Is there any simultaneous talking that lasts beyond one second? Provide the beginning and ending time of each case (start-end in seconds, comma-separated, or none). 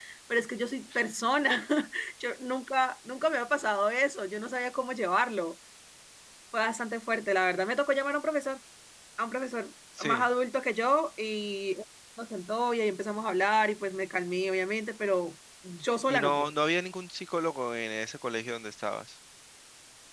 none